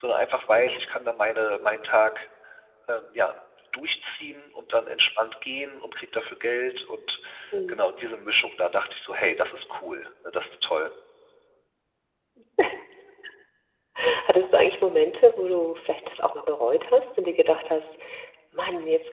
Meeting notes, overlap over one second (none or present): none